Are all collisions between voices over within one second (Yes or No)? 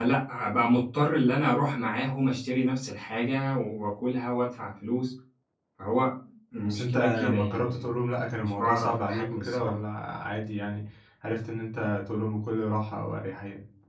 No